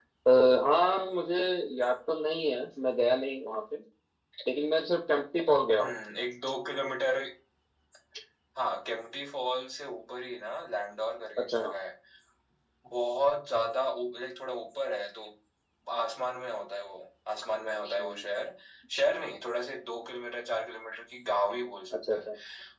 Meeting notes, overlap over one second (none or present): none